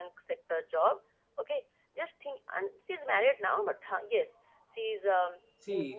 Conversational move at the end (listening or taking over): taking over